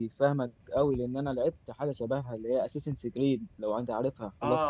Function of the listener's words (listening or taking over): taking over